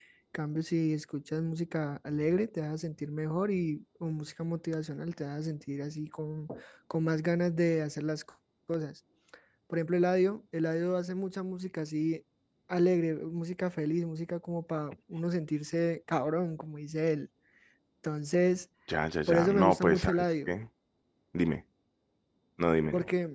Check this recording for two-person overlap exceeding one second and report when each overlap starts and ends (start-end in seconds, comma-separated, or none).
19.3-20.6